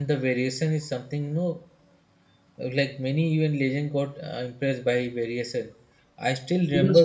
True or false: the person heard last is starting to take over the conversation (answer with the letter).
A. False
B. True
A